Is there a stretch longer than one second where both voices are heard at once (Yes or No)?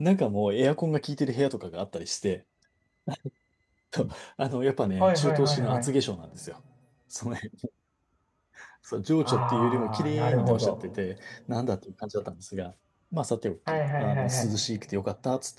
Yes